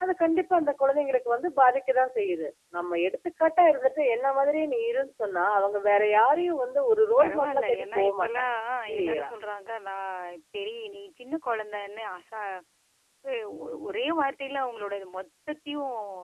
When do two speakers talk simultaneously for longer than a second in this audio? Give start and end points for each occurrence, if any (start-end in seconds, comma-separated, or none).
7.2-8.4